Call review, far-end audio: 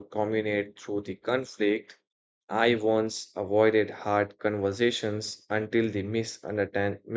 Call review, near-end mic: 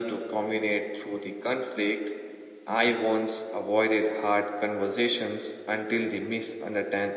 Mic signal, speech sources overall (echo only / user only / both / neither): echo only